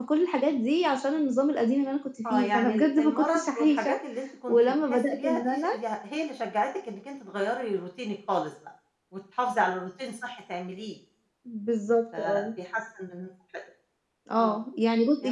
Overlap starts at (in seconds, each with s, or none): 2.3 s